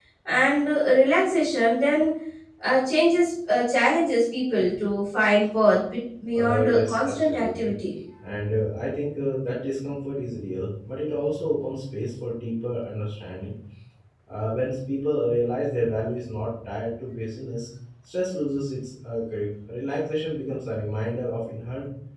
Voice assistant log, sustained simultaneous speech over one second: present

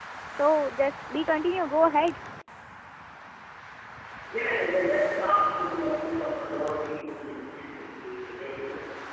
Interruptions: none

